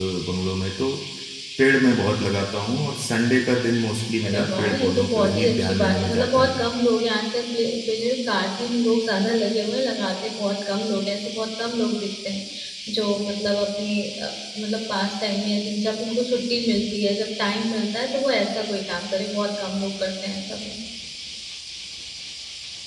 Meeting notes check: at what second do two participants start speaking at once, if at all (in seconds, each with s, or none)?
4.2 s